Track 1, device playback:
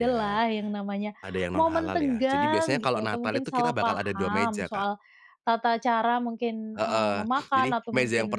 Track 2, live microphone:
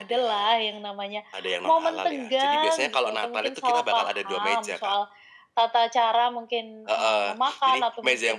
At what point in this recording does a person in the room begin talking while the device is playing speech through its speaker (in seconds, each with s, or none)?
none